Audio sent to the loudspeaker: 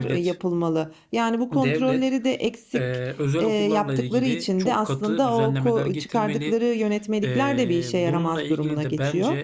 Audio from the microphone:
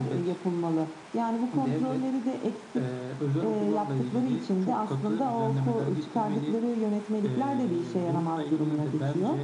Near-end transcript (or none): none